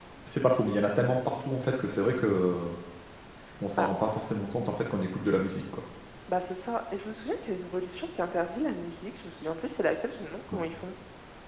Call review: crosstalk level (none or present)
none